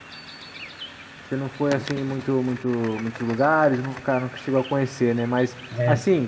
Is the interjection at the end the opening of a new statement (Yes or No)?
No